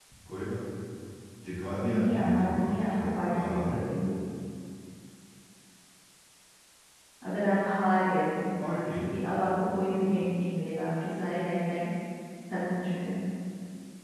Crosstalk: present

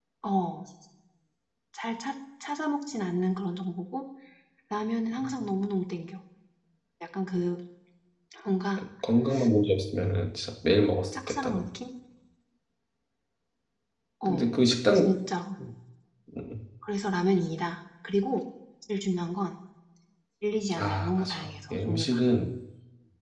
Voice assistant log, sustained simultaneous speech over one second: present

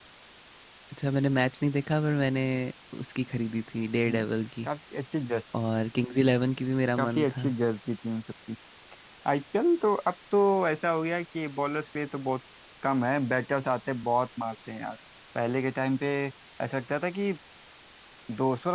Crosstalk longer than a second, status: none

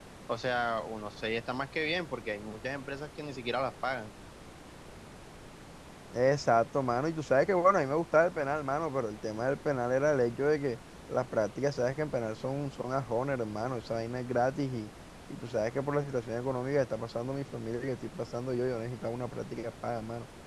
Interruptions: none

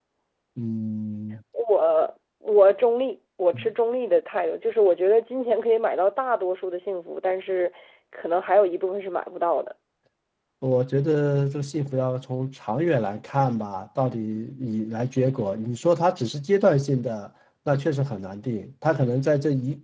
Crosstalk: none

